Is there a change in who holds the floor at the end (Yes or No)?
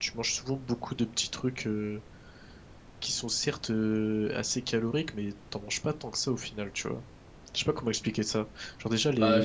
Yes